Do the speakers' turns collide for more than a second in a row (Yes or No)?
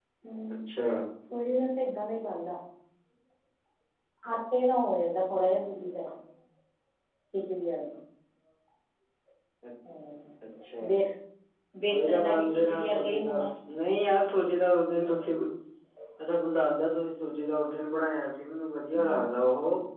Yes